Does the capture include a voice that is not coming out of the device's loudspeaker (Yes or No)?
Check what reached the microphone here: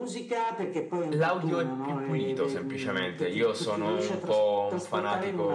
Yes